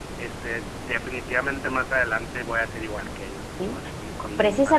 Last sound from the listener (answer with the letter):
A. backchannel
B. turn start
B